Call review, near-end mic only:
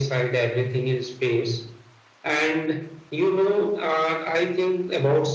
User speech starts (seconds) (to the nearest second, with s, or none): none